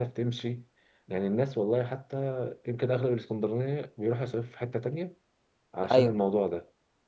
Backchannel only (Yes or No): Yes